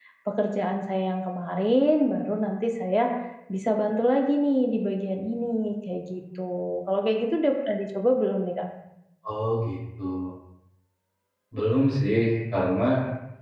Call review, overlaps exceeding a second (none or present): none